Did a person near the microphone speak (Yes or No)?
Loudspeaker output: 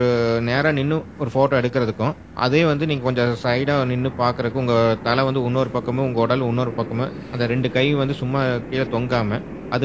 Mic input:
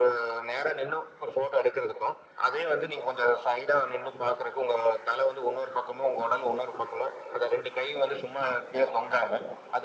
No